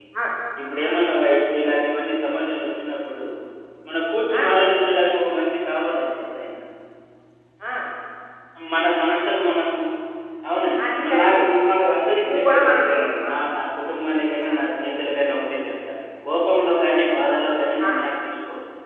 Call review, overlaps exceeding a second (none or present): present